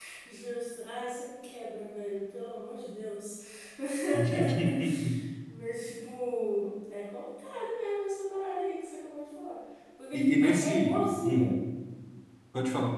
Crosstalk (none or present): present